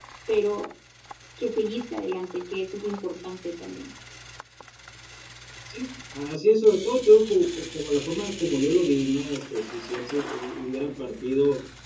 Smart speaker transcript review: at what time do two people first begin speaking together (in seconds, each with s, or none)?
none